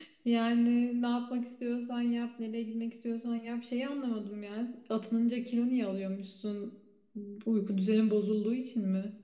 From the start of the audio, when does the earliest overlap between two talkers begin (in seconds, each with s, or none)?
none